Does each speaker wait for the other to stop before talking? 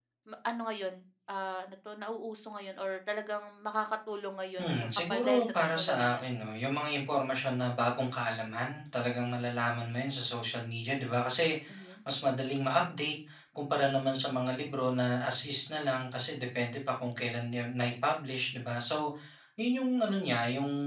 No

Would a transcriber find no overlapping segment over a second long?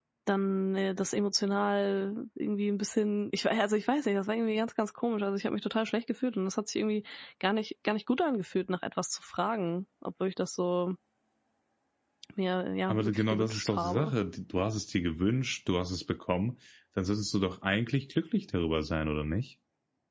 No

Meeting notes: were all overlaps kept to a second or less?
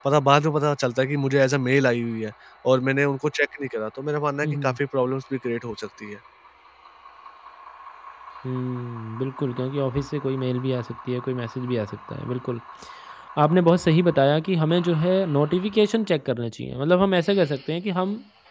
Yes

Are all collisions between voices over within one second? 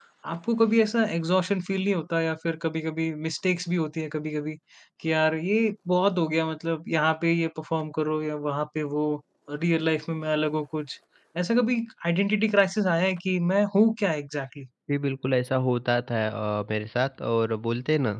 Yes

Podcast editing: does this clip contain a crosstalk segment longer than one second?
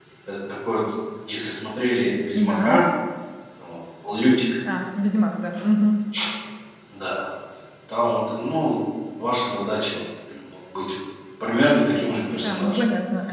No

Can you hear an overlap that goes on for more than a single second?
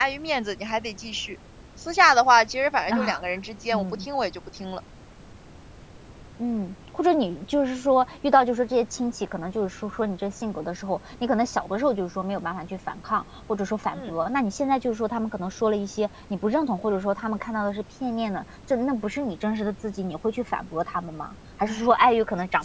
No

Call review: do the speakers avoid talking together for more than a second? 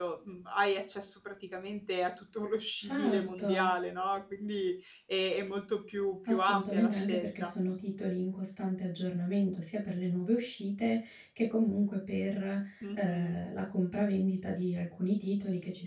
No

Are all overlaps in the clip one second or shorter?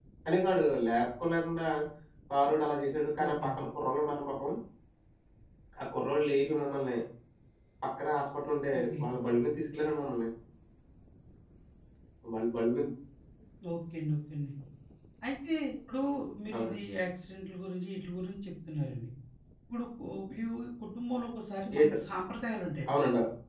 Yes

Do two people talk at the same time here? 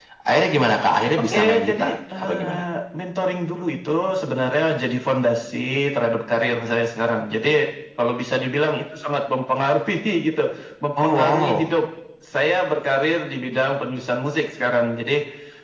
Yes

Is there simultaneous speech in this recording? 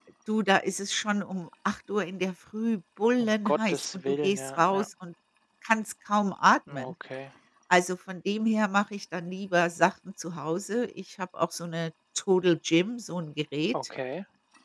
Yes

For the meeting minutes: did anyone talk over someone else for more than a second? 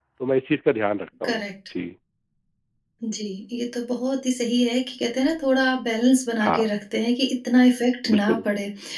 No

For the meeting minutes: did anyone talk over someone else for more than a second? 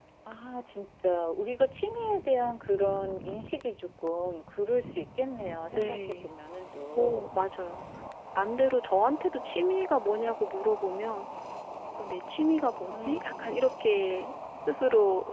No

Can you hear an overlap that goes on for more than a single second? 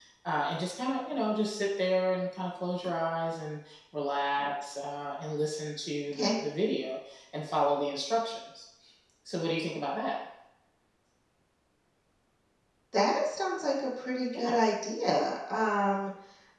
No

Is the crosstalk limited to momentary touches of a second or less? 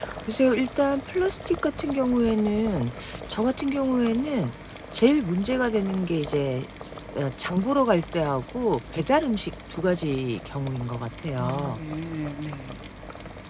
Yes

